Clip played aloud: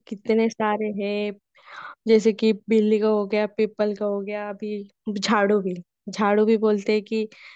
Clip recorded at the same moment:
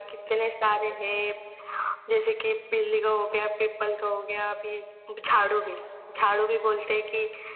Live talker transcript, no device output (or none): none